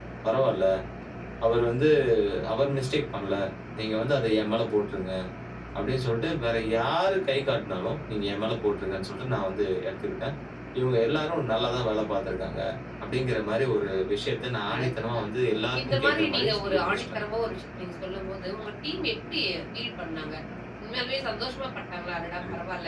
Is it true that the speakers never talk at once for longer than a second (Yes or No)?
No